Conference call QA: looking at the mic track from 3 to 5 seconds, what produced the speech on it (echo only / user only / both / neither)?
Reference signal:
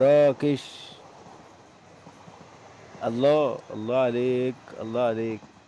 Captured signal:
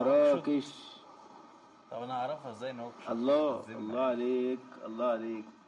both